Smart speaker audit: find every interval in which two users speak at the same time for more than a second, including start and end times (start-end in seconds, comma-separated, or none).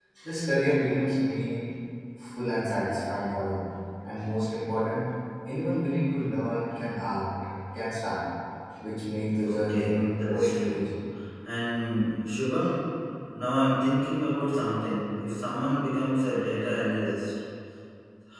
9.4-10.8